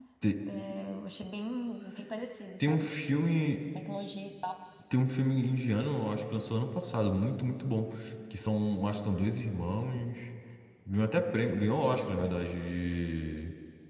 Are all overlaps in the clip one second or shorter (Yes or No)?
Yes